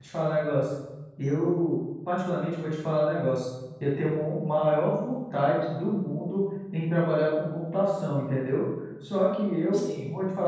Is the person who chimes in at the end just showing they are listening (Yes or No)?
Yes